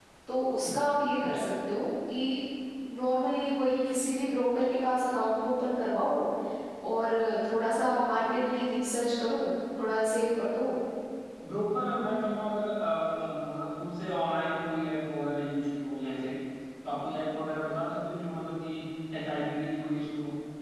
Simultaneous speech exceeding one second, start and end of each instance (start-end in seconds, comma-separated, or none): none